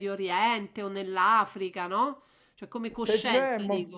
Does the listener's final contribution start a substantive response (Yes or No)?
Yes